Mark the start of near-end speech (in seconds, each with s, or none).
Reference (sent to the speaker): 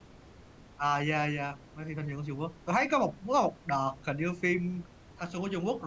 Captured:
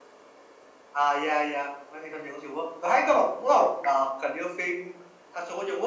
none